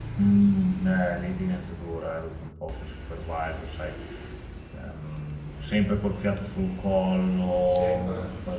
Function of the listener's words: listening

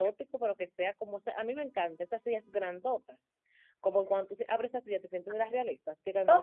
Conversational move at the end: taking over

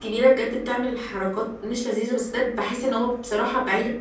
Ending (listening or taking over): listening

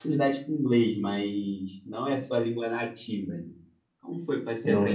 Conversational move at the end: listening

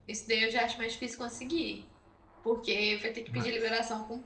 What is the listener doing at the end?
listening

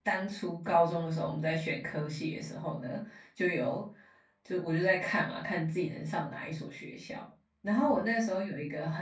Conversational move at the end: listening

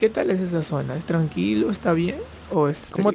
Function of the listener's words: taking over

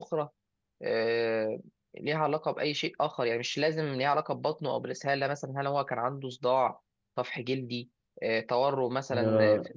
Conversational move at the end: taking over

